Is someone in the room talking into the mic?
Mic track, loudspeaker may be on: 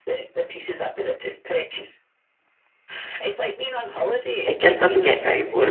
Yes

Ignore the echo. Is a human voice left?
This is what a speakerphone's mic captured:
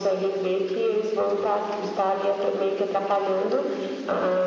No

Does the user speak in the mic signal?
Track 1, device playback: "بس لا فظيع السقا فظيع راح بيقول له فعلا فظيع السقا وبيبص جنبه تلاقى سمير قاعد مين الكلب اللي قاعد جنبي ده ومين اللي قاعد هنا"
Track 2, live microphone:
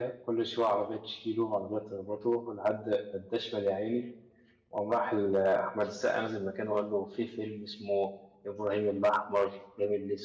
Yes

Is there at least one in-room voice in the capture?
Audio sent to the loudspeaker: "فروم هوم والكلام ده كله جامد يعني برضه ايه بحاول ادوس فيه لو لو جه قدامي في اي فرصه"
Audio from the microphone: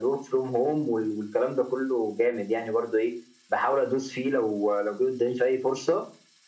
No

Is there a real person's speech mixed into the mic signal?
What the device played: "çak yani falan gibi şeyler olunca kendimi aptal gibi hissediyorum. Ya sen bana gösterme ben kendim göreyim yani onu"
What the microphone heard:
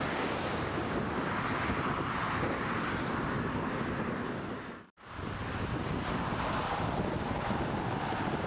No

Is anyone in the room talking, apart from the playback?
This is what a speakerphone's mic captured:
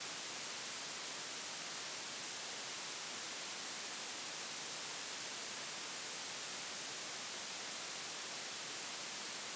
No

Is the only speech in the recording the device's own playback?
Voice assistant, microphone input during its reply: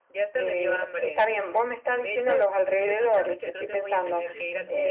No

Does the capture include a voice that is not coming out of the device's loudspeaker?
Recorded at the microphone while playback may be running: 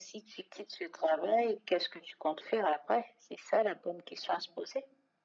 No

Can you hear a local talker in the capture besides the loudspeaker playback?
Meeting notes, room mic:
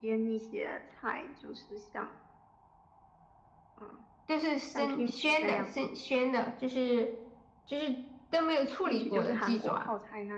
No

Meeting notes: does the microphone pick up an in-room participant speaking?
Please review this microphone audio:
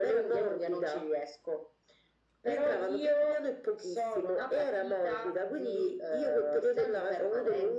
No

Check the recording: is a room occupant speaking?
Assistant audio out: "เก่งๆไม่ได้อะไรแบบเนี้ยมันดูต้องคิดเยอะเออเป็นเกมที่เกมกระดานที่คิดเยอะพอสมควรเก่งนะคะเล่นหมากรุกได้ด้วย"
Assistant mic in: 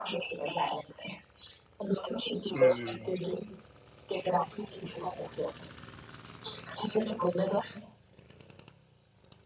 Yes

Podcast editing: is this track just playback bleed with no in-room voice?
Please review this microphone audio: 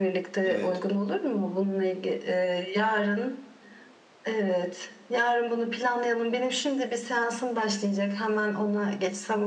No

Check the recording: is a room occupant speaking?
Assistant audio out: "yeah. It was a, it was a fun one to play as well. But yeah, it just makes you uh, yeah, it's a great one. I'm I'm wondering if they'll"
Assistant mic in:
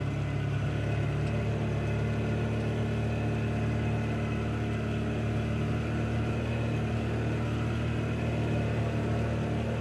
No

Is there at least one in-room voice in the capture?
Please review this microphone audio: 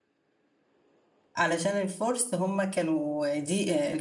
Yes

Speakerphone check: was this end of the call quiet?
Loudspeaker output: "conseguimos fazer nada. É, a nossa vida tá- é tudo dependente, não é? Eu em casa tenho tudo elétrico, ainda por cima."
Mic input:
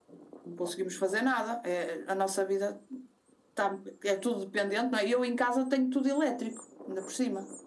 Yes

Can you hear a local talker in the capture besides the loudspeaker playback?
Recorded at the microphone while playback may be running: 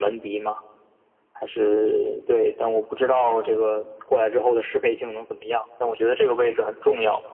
No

